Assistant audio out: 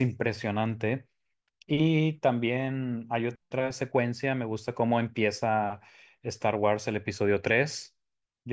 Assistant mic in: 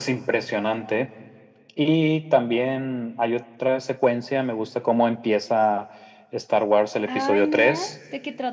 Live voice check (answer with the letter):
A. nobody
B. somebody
B